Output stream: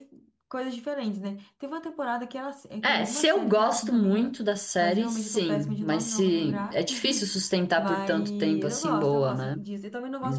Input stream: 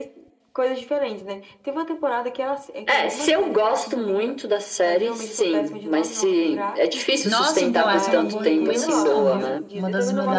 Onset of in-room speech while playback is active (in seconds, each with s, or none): 7.2 s